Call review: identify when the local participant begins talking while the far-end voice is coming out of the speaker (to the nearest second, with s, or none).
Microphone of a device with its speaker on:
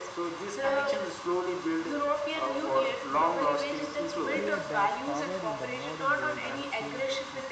4 s